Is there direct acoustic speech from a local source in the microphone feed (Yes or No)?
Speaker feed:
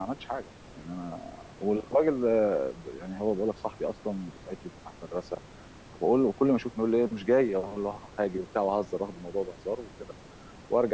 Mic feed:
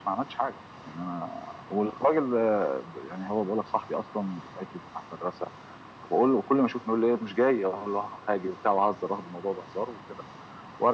No